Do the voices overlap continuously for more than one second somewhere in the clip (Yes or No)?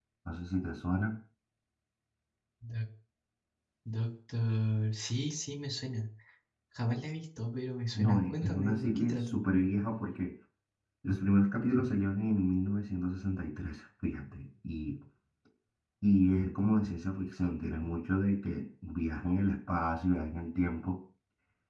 Yes